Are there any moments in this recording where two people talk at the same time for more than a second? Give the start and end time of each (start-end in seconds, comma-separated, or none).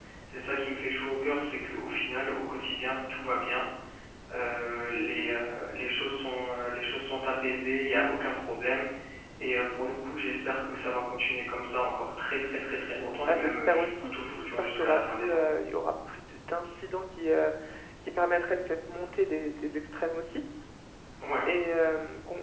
13.3-15.4